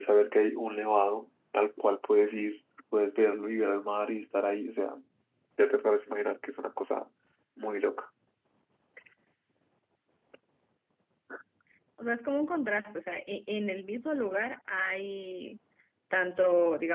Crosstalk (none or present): none